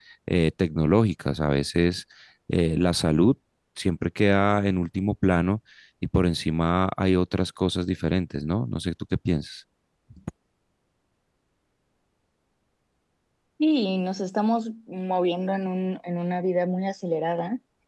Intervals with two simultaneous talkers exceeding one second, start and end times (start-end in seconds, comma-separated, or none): none